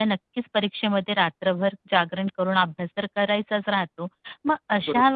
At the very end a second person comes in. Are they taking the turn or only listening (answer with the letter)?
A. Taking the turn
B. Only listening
B